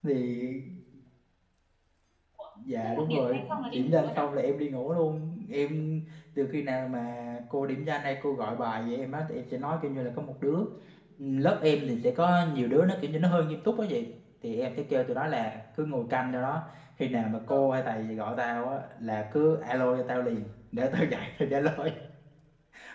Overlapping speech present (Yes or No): Yes